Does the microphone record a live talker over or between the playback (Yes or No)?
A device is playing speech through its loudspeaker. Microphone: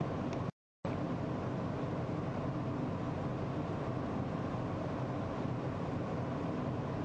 No